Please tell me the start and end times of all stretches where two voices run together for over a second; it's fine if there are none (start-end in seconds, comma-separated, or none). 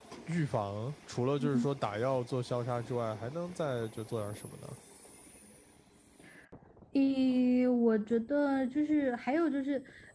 none